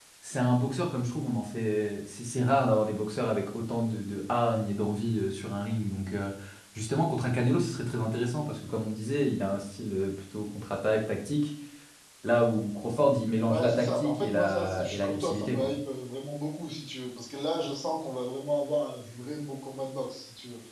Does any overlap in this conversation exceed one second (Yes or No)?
Yes